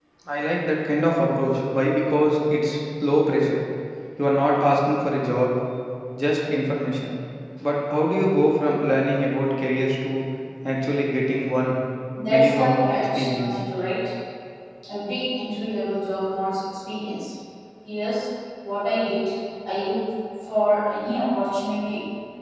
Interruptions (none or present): present